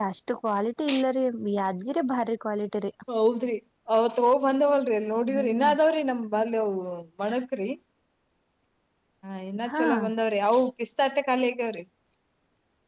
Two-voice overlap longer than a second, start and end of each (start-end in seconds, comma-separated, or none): none